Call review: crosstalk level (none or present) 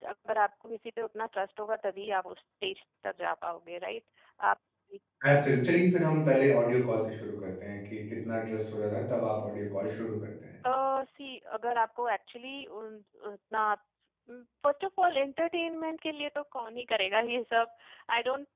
none